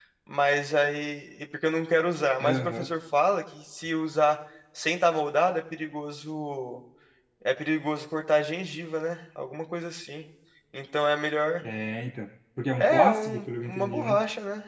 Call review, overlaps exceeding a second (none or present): present